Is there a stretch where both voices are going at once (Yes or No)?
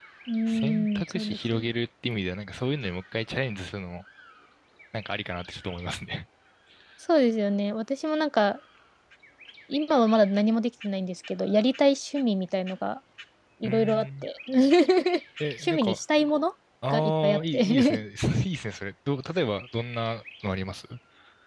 Yes